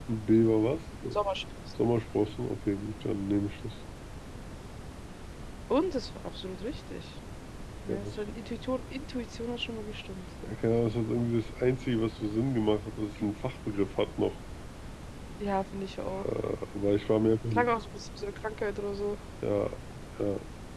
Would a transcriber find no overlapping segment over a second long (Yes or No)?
Yes